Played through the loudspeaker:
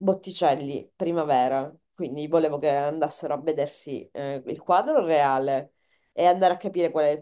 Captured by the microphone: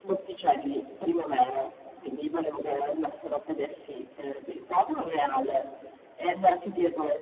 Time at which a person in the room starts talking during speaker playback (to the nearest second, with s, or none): none